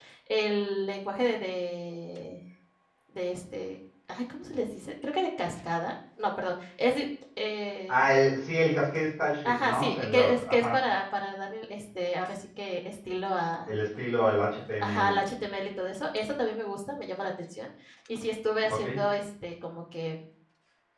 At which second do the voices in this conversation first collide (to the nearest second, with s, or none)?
9 s